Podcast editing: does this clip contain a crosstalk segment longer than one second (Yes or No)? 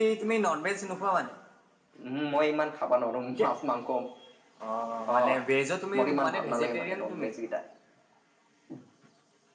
Yes